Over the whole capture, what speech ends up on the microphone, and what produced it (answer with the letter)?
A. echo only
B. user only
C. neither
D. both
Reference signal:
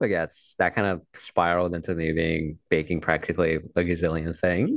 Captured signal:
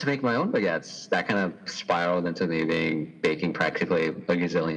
A